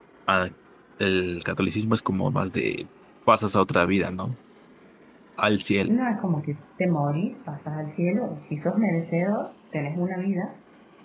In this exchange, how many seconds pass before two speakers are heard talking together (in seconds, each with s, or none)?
none